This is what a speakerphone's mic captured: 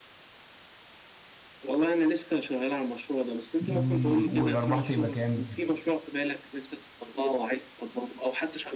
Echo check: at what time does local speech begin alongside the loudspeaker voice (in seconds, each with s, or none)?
3.7 s